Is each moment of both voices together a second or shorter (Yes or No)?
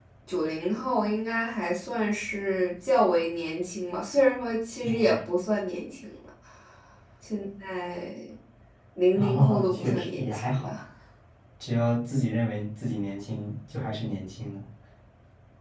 No